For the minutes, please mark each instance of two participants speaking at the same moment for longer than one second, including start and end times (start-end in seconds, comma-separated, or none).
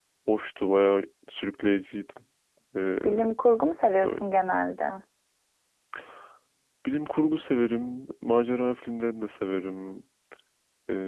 none